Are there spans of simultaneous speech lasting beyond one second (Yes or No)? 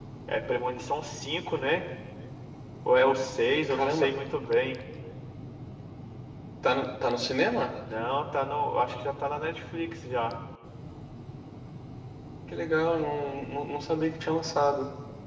No